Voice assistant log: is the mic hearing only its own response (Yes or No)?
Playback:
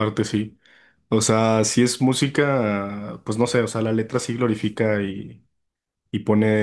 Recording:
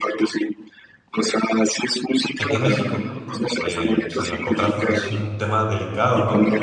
No